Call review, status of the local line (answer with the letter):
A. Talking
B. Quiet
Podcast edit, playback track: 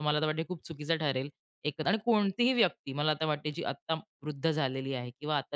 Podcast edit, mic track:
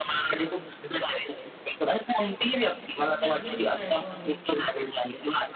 A